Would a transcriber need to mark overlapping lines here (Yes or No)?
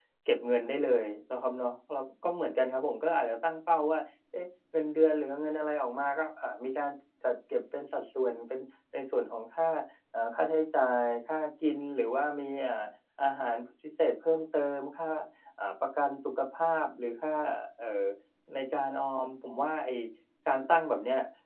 No